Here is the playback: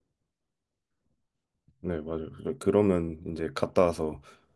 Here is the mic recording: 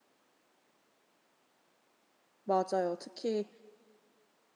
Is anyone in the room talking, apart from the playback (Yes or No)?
Yes